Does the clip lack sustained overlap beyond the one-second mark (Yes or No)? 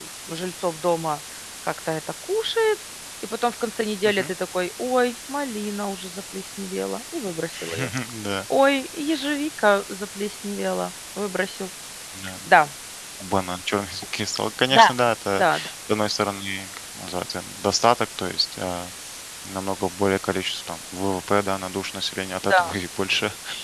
Yes